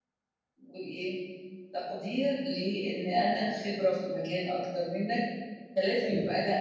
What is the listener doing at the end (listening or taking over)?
listening